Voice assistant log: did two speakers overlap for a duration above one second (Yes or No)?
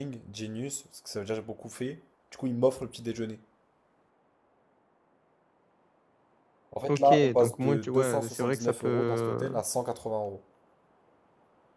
Yes